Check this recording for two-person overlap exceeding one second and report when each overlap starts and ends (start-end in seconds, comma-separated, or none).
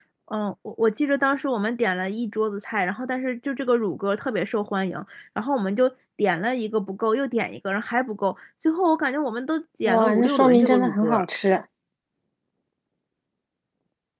9.8-11.2